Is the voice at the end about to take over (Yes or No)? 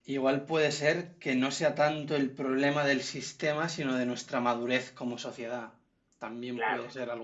Yes